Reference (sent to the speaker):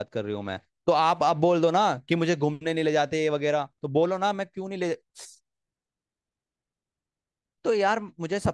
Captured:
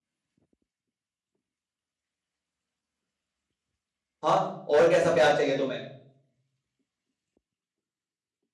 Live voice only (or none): हाँ और कैसा प्यार चाहिए तुम्हें